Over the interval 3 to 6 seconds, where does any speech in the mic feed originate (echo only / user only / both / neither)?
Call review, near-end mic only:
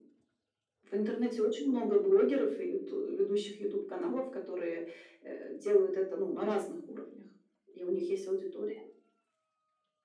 echo only